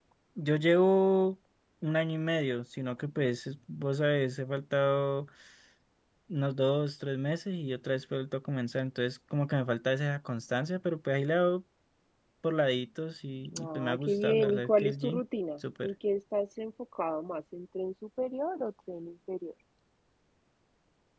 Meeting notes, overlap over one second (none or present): present